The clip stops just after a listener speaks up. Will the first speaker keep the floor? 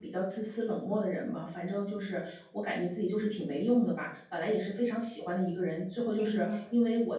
Yes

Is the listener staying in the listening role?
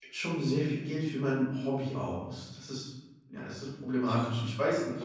No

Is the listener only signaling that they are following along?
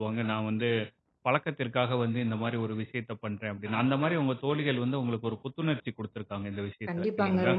No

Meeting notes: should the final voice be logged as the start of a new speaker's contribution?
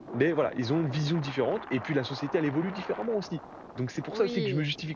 No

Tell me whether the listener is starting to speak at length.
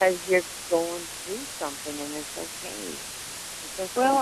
Yes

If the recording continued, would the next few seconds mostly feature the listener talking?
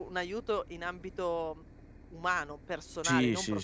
Yes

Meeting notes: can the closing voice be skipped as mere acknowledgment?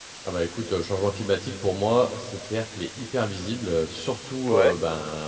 Yes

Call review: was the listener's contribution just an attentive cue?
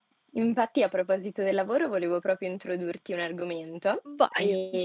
Yes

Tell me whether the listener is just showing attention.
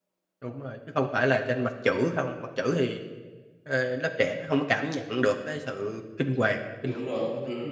No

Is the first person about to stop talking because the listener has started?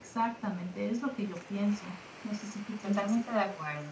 Yes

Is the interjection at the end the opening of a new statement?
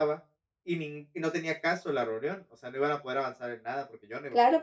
Yes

